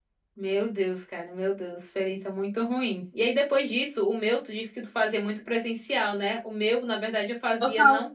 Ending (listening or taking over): listening